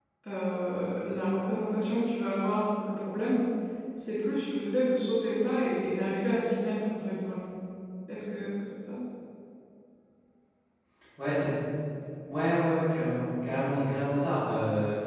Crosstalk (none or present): none